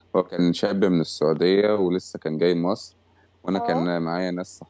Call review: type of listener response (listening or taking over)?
listening